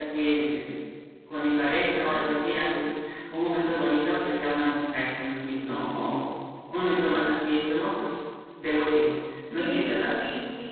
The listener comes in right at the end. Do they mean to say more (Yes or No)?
Yes